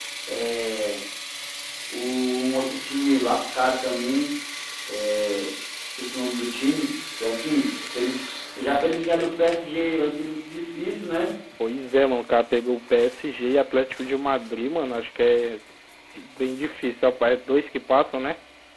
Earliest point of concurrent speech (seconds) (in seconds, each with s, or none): none